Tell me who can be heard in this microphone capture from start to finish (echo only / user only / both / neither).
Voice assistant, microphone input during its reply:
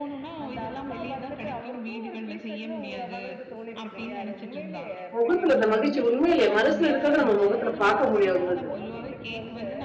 both